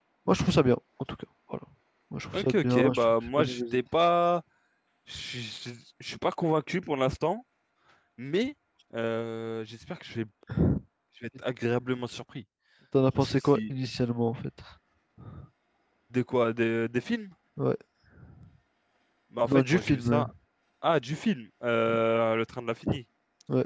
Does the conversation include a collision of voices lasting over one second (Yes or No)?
Yes